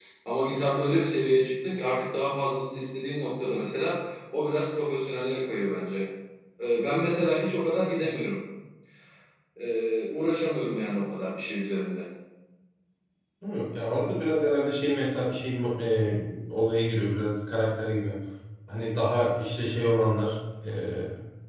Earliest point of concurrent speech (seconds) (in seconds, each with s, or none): none